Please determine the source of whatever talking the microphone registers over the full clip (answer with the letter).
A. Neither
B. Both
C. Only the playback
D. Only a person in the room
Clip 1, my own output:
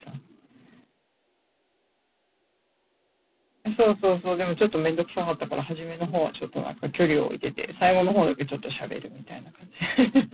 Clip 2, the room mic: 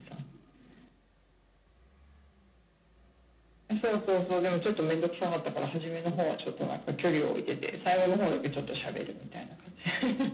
C